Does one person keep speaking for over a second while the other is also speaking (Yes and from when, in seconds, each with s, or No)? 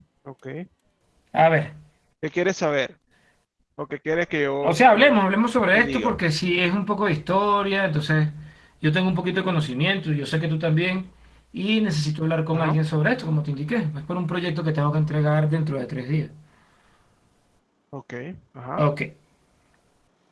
No